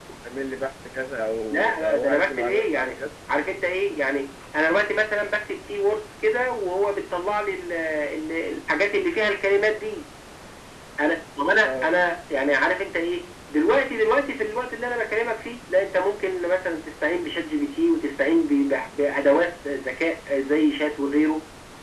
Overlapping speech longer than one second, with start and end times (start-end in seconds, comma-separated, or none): 1.5-3.0